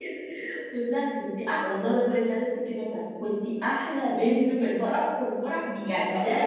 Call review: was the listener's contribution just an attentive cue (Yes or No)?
Yes